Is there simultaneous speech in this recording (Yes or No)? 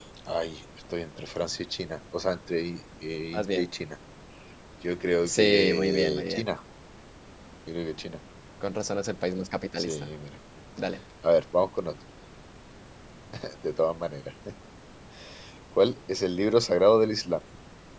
Yes